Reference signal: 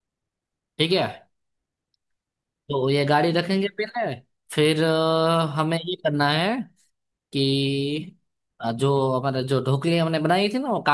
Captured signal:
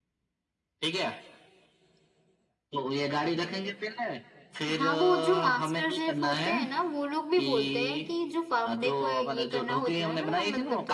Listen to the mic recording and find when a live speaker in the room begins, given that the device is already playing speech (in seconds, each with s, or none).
4.7 s